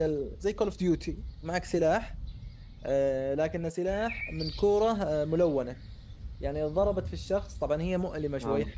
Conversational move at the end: listening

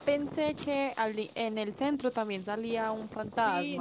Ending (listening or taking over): taking over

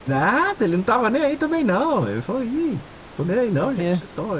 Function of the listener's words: listening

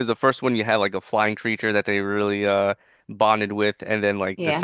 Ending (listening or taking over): listening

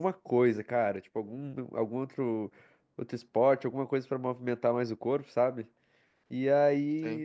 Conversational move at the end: listening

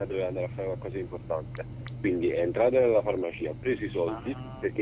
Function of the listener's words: listening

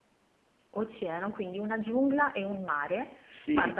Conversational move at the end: taking over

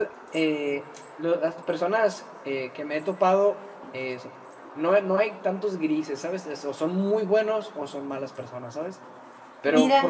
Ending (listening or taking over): listening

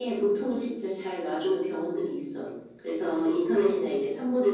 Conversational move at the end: listening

